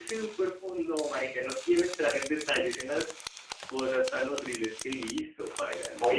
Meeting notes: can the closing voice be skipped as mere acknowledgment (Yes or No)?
No